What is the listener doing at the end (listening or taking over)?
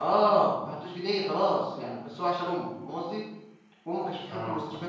listening